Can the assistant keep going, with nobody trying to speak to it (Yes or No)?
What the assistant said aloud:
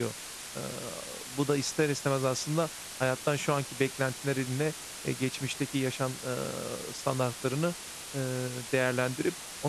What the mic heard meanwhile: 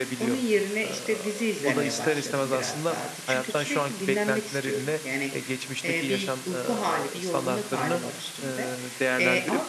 No